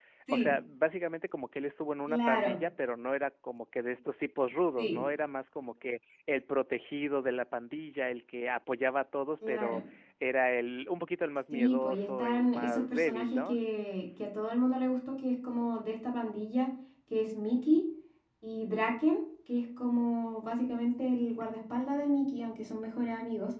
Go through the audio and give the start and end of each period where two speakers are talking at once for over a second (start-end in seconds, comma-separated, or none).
11.5-13.6